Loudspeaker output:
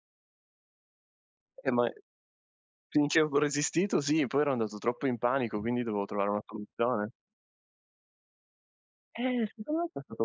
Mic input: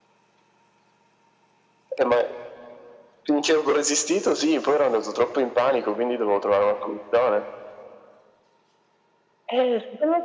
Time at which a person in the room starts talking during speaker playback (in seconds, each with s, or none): none